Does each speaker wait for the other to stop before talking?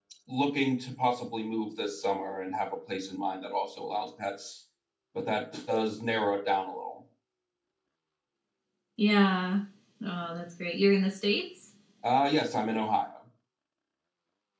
Yes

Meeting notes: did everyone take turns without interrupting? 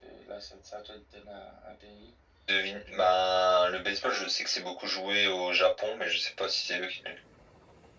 Yes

